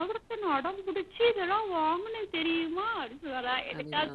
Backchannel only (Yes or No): Yes